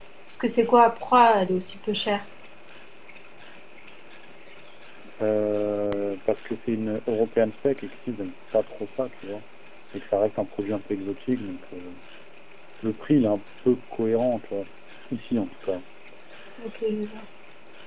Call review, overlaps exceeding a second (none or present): none